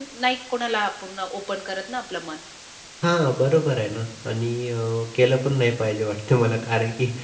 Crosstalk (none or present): none